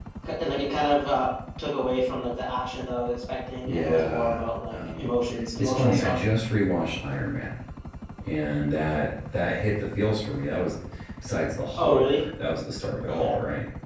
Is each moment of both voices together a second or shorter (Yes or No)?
No